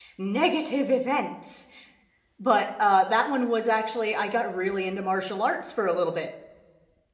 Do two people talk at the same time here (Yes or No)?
No